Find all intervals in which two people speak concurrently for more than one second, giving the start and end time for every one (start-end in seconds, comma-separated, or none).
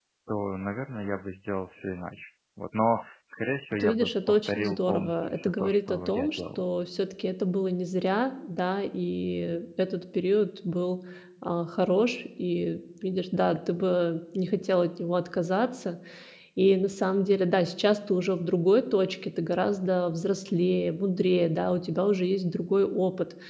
3.7-6.6